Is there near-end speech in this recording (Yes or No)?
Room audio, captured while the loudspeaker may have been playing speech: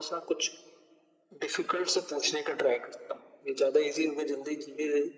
No